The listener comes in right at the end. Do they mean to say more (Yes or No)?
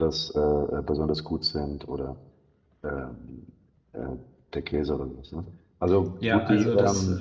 Yes